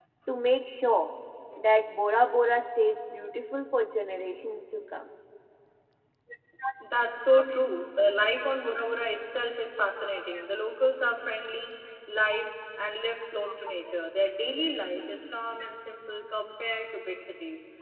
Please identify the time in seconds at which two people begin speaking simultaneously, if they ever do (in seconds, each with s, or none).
none